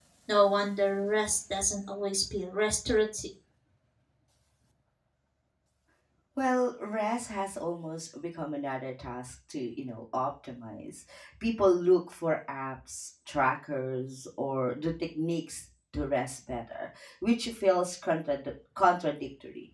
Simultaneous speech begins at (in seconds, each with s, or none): none